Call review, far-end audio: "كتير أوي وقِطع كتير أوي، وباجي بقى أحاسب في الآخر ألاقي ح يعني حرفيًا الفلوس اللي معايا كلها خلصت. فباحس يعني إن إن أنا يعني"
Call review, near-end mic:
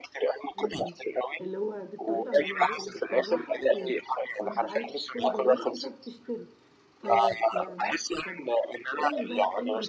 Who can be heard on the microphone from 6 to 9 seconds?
both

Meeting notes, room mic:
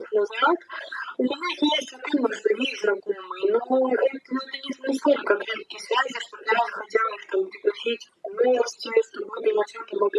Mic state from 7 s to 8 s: echo only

